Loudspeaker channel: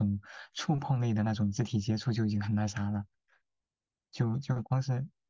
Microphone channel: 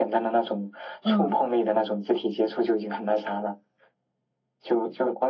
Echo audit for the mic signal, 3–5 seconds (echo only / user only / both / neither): echo only